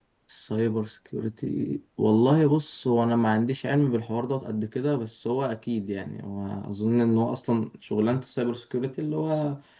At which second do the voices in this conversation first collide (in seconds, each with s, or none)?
none